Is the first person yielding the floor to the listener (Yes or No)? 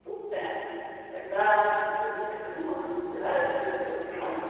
No